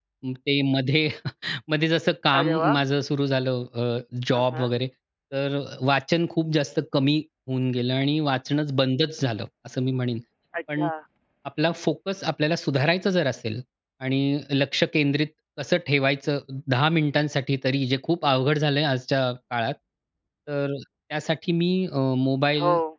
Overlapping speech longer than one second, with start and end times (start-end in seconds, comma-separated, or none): none